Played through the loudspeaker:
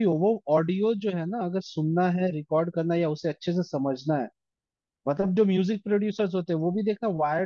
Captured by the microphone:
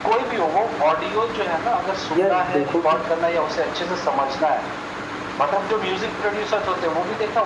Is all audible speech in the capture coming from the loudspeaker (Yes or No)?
No